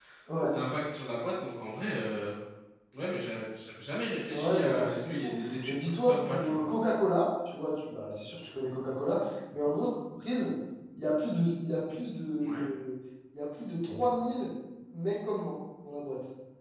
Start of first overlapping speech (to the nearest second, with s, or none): 4 s